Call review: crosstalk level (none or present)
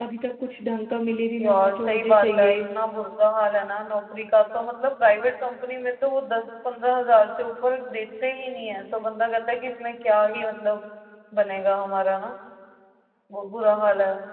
present